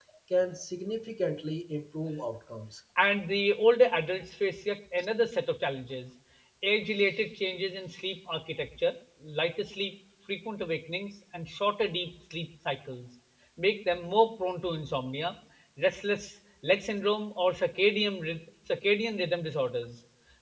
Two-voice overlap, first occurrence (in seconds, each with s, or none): none